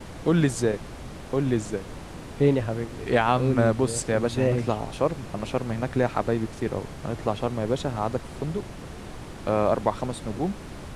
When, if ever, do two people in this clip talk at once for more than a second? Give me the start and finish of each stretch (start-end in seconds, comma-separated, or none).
3.4-4.7